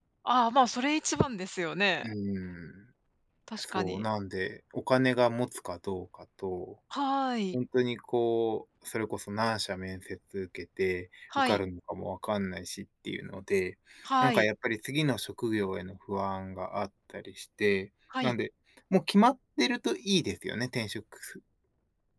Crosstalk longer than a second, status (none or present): none